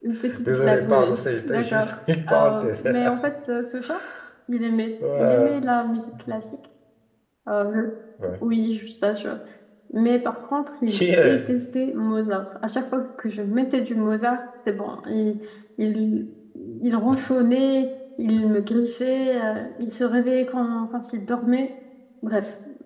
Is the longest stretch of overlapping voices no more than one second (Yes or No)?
No